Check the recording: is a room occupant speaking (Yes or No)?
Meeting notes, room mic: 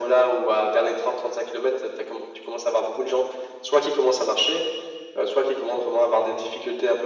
No